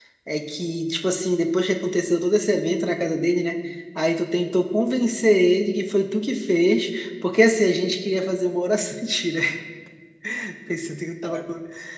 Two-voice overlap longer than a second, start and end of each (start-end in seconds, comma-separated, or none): none